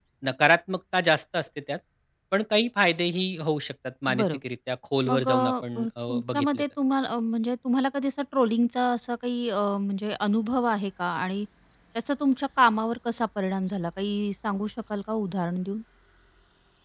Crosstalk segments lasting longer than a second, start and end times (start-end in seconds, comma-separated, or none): 5.1-6.6